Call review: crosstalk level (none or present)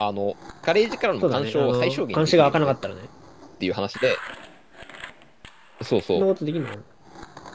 present